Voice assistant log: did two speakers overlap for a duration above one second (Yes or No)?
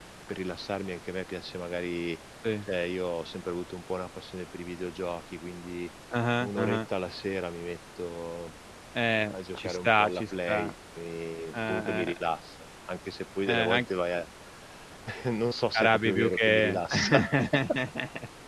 Yes